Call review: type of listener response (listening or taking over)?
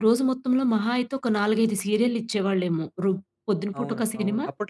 taking over